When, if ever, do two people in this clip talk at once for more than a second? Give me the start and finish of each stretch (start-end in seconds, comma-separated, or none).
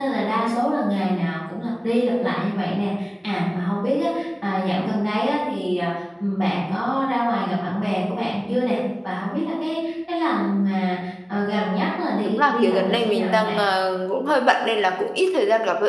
12.2-13.6